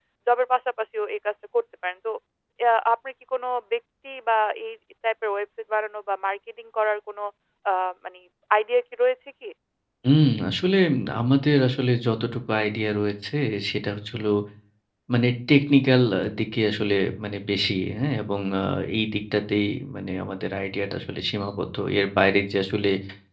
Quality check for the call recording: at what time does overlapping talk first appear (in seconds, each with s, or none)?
none